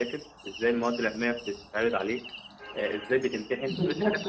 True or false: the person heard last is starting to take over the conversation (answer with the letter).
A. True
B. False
A